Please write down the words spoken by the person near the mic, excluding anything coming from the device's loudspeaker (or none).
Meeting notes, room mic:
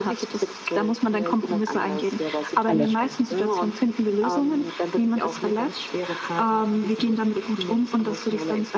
Allerschlimmste.